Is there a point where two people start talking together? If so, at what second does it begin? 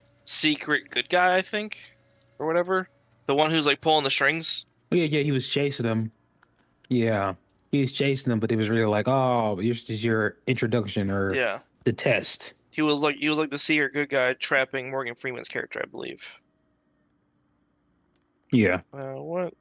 none

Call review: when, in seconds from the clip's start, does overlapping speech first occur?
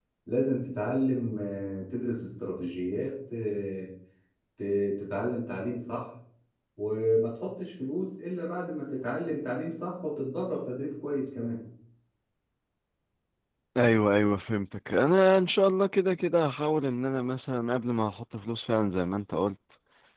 none

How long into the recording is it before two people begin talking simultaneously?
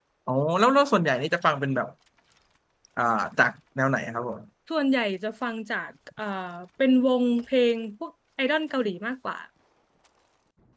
none

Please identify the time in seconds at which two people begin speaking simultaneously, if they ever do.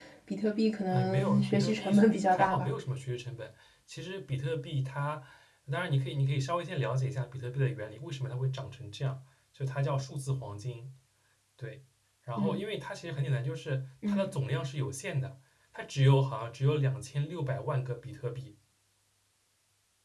0.9 s

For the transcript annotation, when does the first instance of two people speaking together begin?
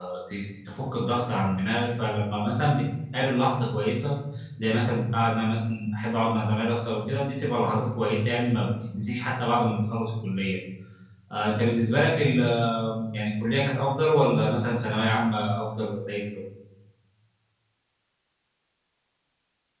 none

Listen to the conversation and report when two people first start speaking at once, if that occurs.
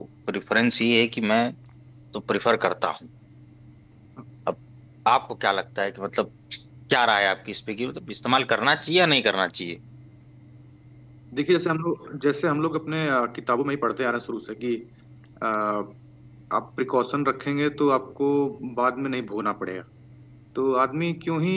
none

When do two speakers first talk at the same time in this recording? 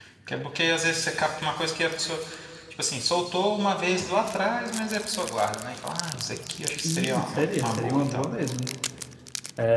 6.8 s

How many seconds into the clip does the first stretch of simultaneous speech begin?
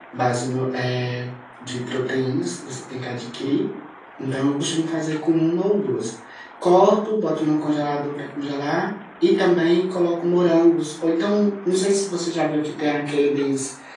none

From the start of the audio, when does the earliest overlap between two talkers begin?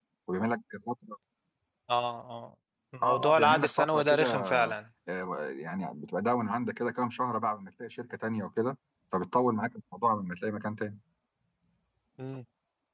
3.0 s

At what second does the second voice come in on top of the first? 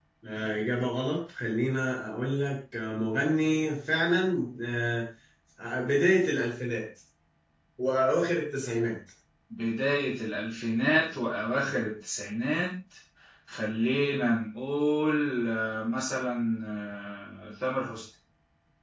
none

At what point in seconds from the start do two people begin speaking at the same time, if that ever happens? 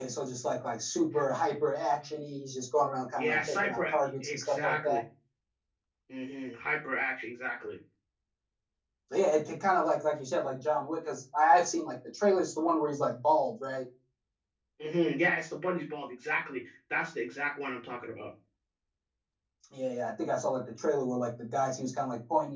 3.2 s

